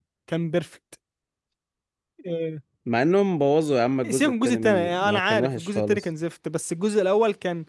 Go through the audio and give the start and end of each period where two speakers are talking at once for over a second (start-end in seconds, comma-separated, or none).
4.1-6.0